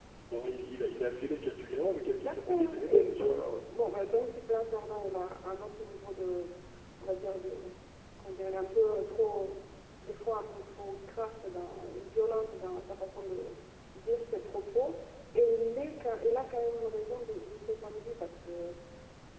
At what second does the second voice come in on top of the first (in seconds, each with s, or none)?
2.1 s